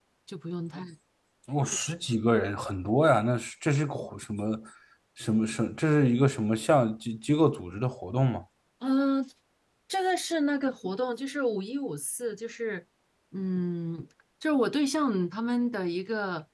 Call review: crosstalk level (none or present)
none